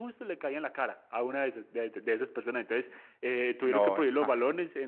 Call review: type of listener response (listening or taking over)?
listening